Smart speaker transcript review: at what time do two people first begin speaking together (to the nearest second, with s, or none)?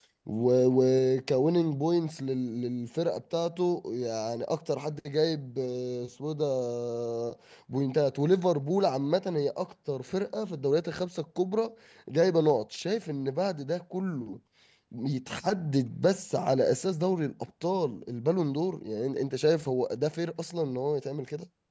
none